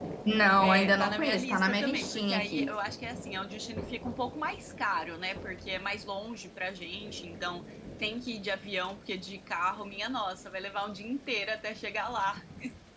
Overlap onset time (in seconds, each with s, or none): 0.6 s